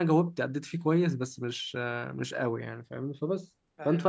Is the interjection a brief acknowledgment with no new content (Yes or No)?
Yes